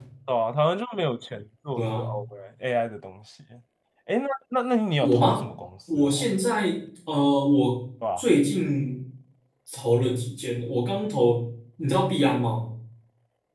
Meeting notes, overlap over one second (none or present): none